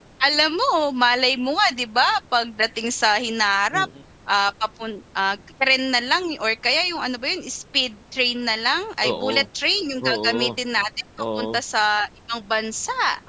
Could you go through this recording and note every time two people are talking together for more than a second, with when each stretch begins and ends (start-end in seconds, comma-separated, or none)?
none